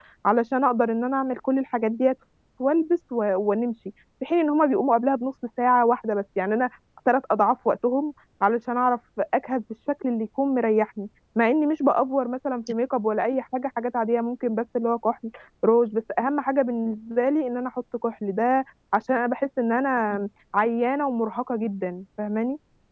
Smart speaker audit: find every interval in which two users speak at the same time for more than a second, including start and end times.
none

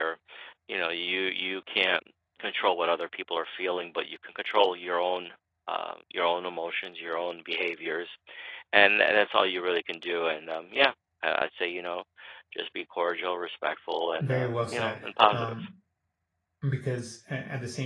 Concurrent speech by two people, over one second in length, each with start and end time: 14.2-15.7

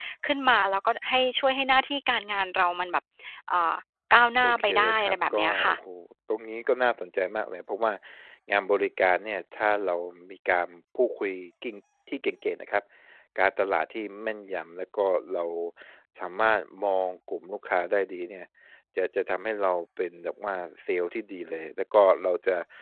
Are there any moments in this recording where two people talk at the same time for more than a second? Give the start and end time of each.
4.4-5.8

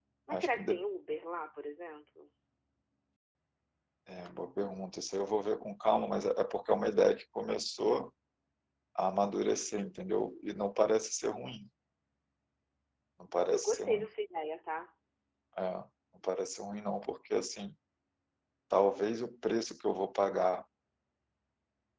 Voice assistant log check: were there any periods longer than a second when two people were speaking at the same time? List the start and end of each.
none

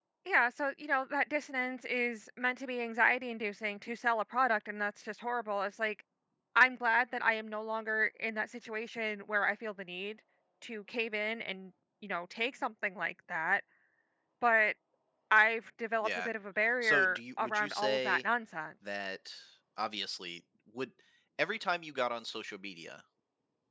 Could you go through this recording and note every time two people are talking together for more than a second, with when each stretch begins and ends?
16.8-18.2

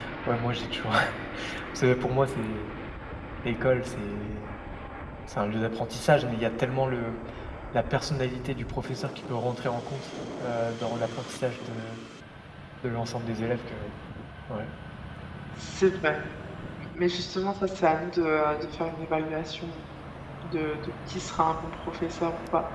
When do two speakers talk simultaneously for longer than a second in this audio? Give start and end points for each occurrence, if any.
none

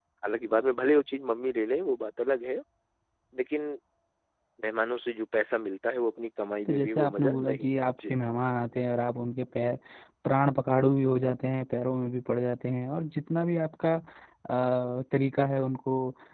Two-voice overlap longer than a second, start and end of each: 6.7-8.1

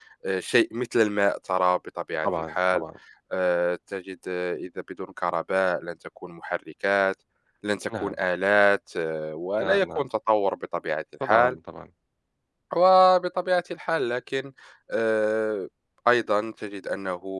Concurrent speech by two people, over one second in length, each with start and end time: none

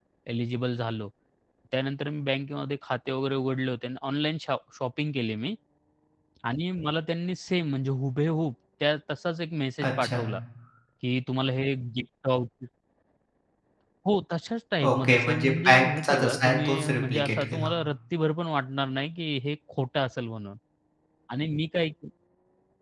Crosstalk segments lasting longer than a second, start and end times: 14.8-17.7

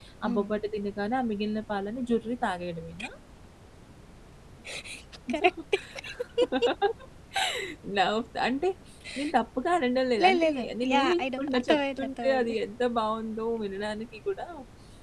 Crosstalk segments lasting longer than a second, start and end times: 10.2-12.6

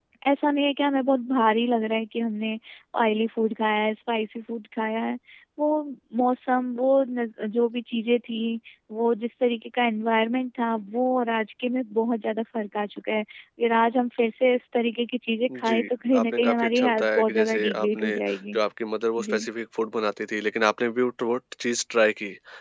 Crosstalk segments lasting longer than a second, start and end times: 15.6-18.1

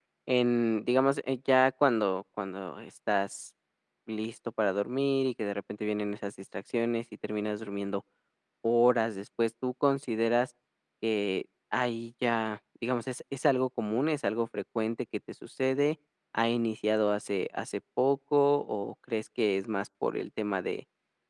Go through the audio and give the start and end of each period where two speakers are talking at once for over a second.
none

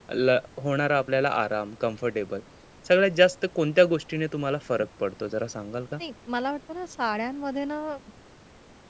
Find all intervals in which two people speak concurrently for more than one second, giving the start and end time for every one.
none

